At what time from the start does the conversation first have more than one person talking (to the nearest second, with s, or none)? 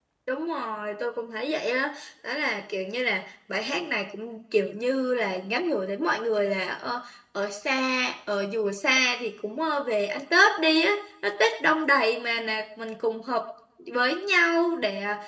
none